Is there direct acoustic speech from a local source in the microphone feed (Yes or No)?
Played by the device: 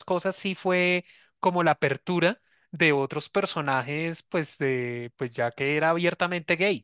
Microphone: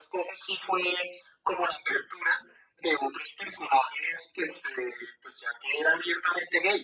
No